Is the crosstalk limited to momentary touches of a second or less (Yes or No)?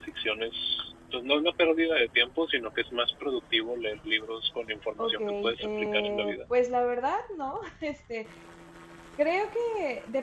No